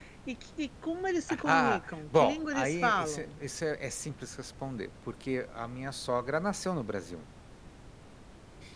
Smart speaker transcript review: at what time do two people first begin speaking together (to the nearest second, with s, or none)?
1 s